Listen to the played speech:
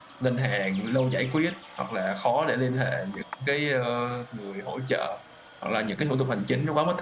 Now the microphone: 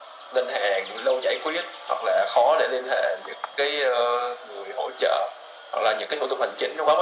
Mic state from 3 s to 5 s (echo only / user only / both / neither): echo only